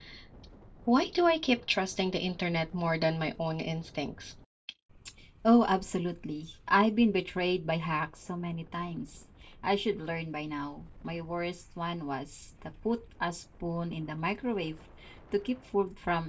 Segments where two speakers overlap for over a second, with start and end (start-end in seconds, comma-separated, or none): none